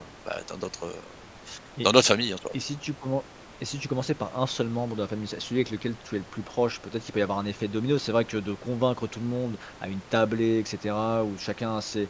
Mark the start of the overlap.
none

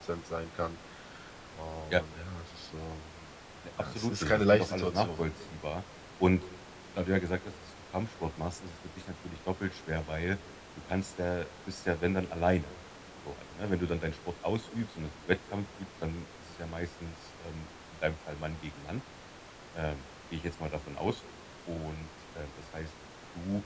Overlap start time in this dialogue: 3.8 s

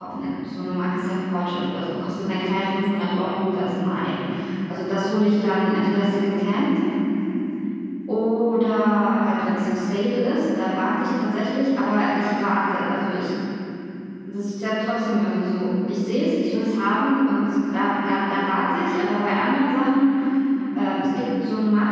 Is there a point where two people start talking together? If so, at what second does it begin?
none

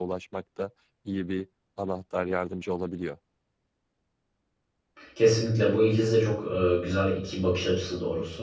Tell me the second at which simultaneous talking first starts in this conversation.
none

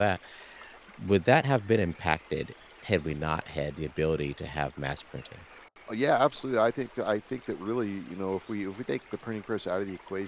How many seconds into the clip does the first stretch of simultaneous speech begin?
none

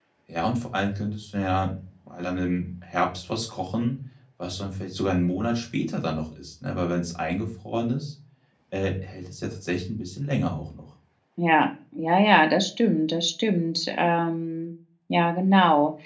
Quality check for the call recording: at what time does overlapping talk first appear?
none

